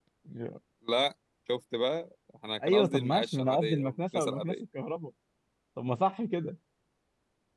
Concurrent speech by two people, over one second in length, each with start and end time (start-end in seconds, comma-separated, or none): 2.7-4.5